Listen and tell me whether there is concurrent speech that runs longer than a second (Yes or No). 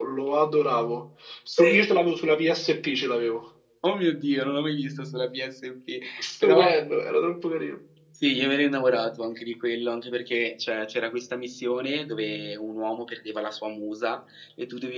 No